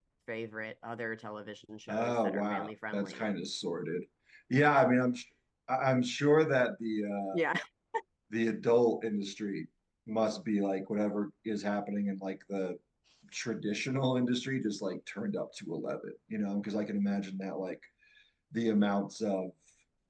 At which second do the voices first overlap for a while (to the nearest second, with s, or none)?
2 s